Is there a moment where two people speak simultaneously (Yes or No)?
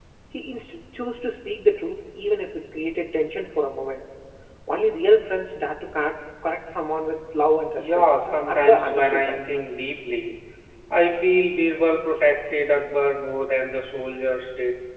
Yes